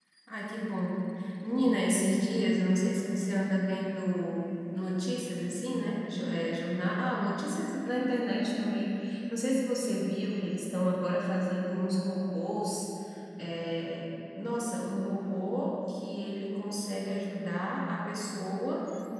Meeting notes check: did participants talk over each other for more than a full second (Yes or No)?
No